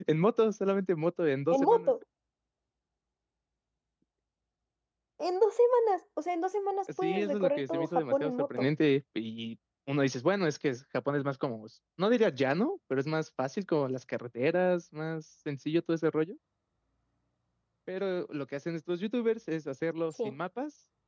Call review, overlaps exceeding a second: present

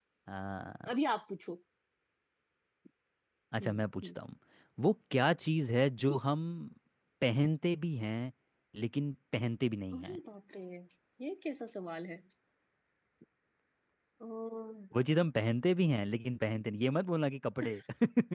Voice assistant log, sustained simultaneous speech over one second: none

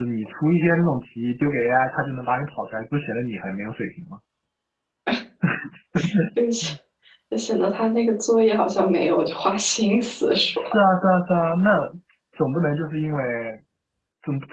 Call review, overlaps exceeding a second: none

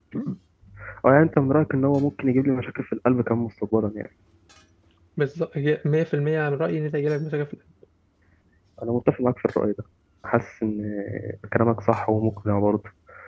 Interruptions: none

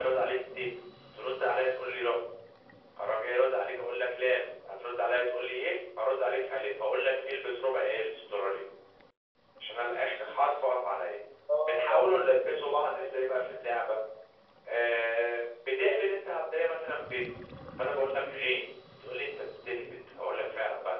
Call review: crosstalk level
present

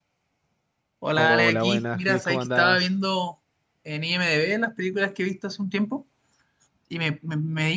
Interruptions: present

